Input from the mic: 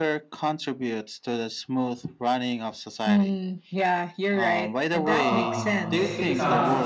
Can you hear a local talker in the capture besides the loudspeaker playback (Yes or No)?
Yes